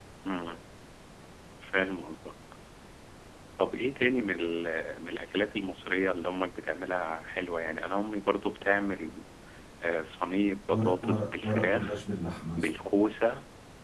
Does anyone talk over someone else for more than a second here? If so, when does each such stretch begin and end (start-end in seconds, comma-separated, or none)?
10.7-12.0